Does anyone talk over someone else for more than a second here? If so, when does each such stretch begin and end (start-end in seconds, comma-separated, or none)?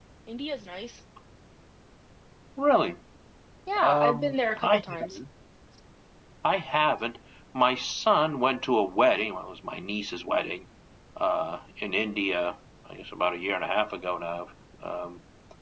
3.8-5.2